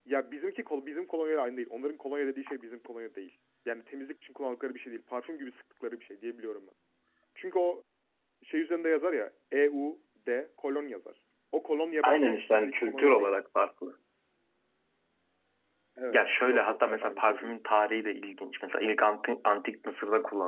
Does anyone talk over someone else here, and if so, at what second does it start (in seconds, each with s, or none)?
12.0 s